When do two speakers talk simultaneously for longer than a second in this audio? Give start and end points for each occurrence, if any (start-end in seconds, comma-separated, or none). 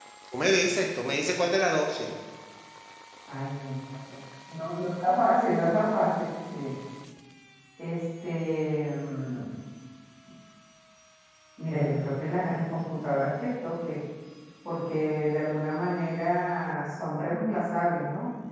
none